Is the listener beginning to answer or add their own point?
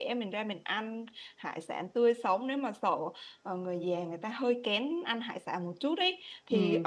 No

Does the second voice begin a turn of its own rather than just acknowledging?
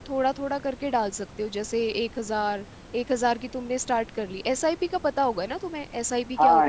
Yes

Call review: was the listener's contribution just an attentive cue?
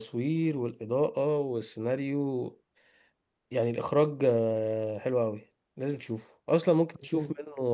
Yes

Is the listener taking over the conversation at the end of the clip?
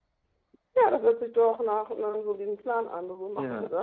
Yes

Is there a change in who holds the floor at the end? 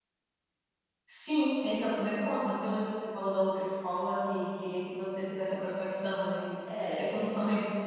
Yes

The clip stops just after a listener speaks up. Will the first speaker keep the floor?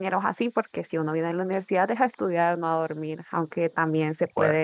Yes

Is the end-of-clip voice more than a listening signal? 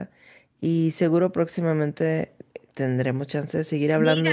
Yes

